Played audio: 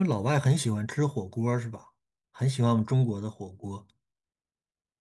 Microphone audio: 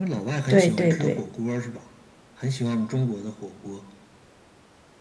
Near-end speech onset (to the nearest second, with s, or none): 0 s